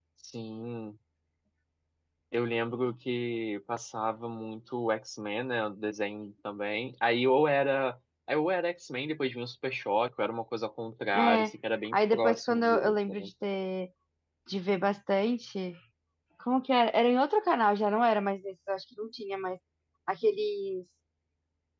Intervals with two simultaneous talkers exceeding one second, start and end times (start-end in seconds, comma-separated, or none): 11.9-13.3